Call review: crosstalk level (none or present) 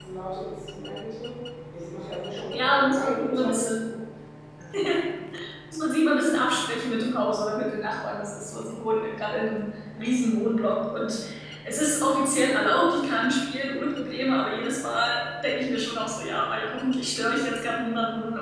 present